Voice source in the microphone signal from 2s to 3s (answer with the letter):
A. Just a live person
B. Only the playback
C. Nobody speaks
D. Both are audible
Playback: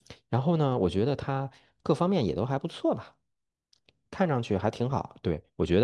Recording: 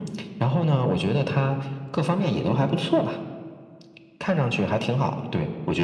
B